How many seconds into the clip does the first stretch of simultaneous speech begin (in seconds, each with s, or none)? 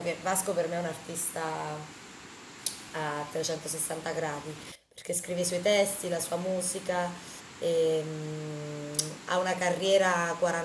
none